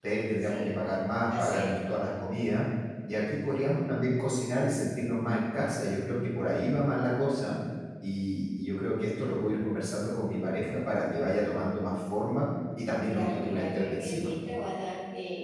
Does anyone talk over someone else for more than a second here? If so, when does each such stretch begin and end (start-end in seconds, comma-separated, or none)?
13.1-14.3